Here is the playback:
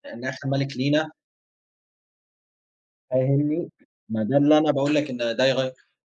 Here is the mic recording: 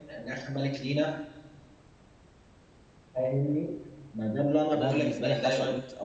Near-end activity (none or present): present